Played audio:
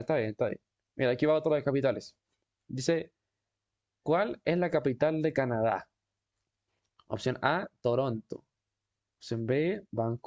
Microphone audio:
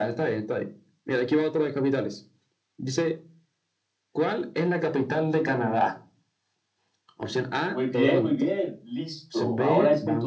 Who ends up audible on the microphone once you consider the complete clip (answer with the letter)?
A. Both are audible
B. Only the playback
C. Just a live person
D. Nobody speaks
A